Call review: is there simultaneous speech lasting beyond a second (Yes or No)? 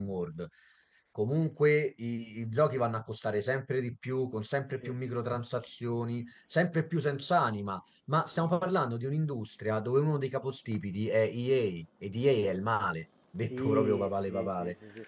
Yes